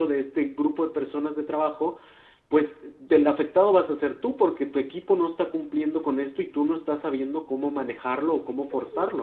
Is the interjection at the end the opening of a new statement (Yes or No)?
Yes